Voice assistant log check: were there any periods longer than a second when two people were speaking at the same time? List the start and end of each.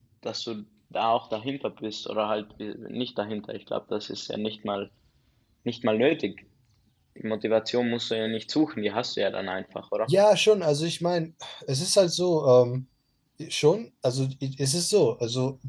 none

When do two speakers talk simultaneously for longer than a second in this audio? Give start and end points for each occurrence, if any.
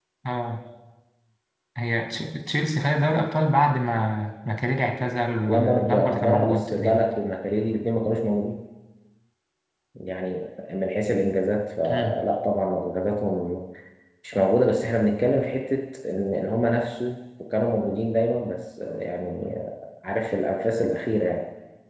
5.5-7.0

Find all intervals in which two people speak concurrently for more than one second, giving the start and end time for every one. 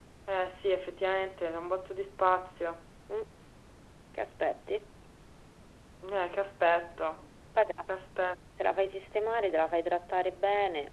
none

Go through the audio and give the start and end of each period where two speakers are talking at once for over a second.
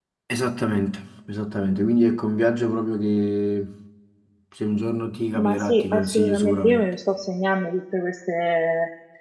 5.4-6.9

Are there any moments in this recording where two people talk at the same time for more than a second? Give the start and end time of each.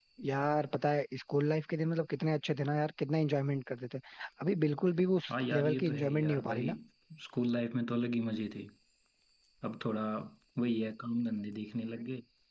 5.3-6.7

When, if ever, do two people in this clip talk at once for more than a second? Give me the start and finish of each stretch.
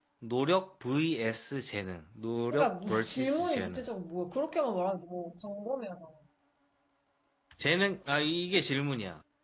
2.5-3.8

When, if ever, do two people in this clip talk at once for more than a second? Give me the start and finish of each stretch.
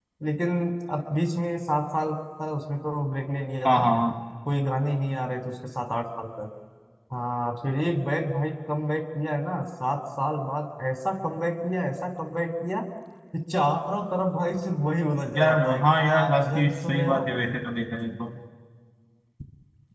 15.4-17.3

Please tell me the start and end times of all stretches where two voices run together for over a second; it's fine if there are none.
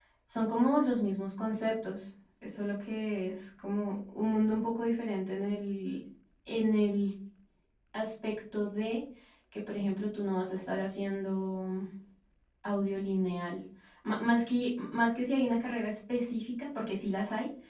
none

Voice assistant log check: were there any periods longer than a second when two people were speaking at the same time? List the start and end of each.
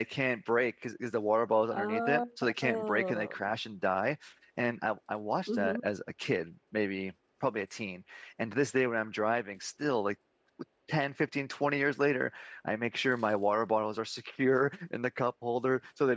1.7-3.3

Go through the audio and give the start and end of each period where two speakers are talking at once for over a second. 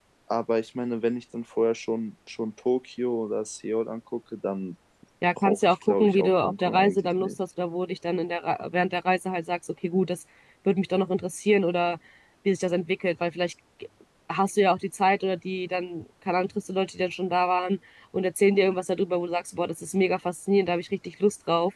5.4-7.3

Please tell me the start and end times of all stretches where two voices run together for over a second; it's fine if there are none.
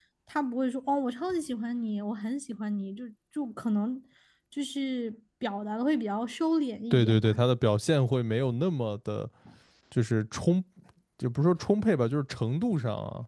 none

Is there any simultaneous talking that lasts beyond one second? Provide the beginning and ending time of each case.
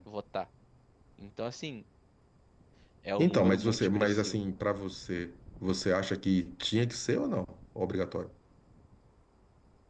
3.2-4.4

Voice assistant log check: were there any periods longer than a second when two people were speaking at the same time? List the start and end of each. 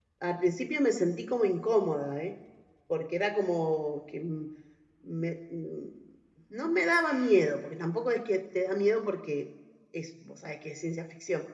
none

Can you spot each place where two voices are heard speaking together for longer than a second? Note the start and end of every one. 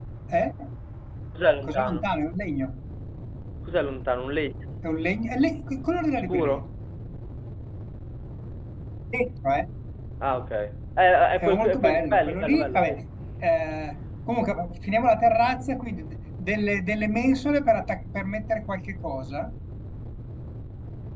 11.4-13.0

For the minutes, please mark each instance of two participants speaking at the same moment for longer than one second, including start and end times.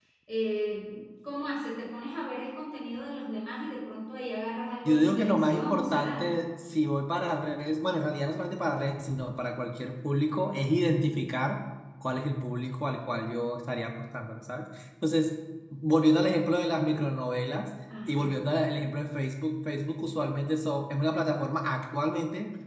4.8-6.3

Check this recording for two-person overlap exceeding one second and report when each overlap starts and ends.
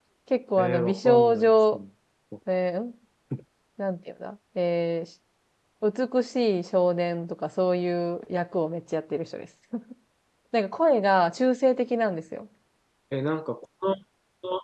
0.6-1.8

